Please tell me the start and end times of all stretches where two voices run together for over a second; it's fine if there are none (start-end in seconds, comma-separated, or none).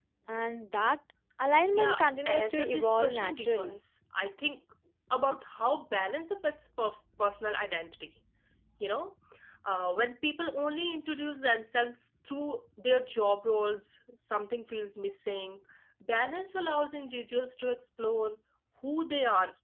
1.7-3.8